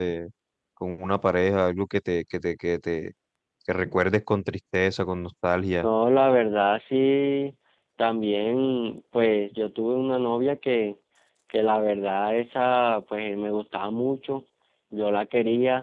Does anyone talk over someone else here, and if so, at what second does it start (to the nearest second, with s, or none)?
none